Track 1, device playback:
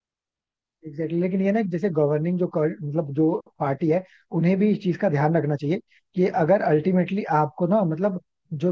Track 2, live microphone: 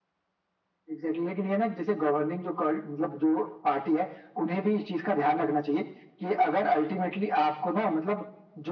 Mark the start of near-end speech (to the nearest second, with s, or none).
none